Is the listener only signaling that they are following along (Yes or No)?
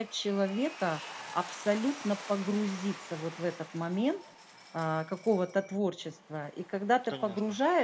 Yes